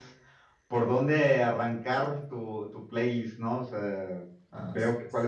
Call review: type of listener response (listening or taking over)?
listening